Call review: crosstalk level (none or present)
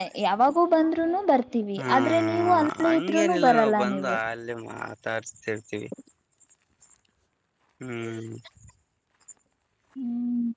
present